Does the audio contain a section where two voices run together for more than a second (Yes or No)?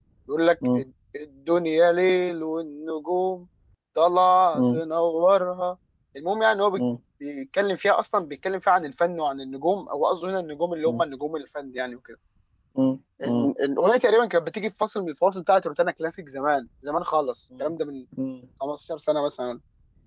No